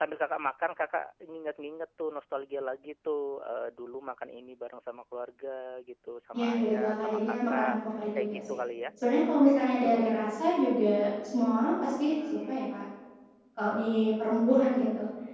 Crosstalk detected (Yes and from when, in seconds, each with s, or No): Yes, from 6.3 s